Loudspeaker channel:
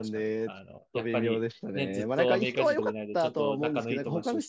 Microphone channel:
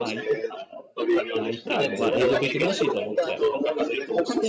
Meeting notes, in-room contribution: present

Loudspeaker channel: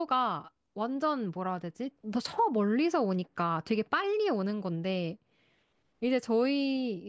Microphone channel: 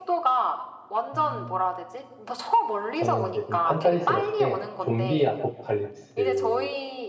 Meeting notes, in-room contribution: present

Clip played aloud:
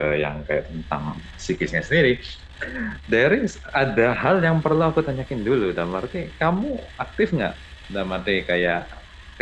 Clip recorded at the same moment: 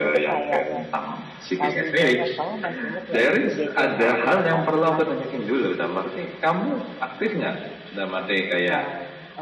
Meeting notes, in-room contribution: present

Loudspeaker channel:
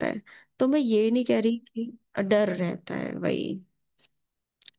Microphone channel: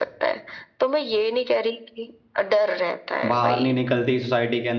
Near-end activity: present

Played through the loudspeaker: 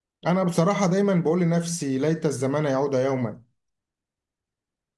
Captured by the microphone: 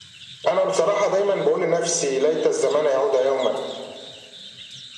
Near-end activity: none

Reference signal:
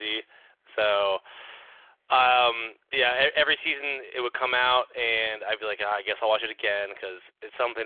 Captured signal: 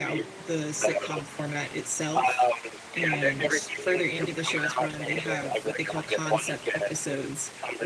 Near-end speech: present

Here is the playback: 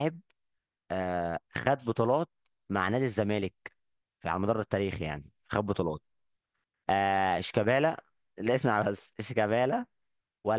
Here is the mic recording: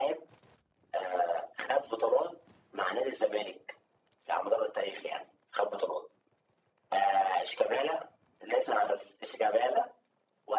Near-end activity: none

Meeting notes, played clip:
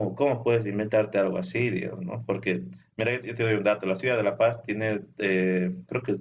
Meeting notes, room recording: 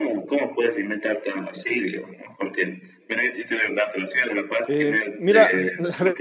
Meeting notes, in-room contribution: present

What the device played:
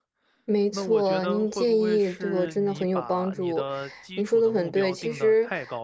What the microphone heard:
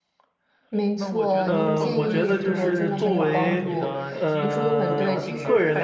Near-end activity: present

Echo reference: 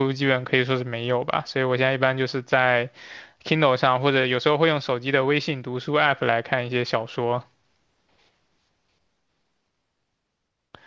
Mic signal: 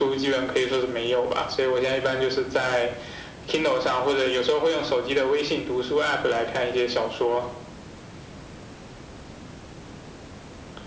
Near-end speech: none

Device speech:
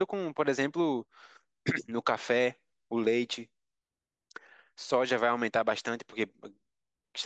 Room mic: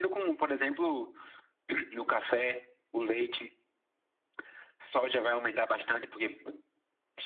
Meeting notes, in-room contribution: none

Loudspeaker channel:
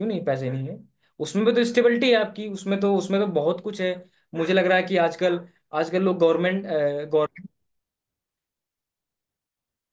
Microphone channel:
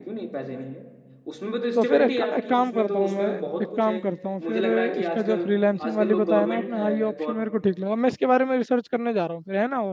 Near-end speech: present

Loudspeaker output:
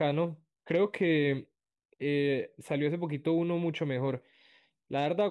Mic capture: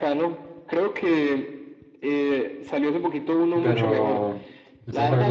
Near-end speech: present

